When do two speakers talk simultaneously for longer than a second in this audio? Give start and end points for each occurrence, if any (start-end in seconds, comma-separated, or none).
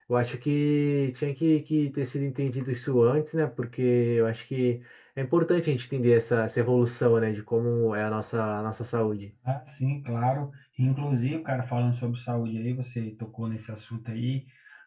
none